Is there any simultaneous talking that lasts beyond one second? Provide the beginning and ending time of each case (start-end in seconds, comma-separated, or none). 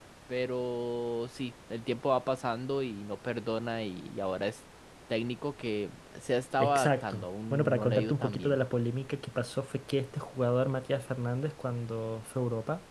6.6-8.6